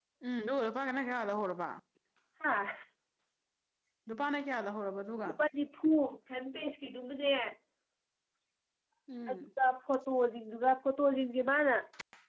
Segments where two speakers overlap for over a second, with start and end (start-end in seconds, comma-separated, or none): none